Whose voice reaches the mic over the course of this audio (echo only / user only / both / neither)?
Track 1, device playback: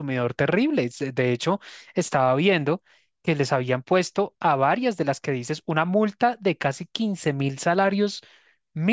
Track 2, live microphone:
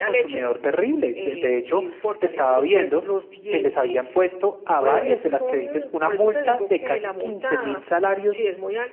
both